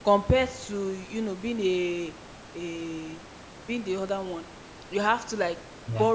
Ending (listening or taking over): listening